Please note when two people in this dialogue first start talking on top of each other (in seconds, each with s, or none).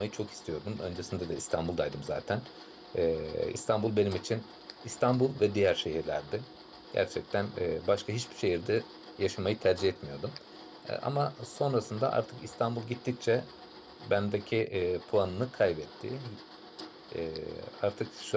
none